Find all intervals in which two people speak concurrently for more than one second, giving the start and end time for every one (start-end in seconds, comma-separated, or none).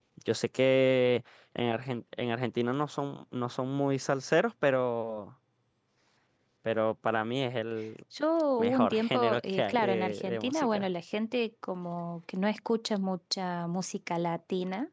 8.6-10.9